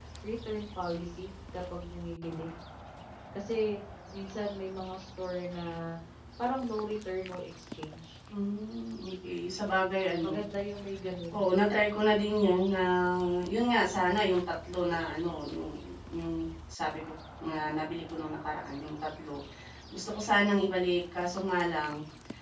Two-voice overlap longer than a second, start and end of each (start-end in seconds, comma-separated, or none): none